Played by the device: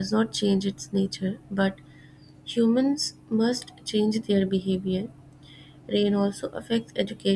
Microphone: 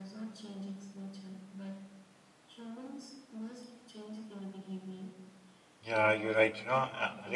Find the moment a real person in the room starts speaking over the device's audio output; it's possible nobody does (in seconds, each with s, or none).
5.8 s